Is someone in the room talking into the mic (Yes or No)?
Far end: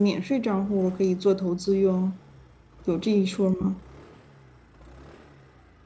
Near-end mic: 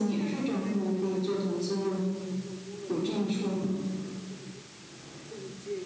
Yes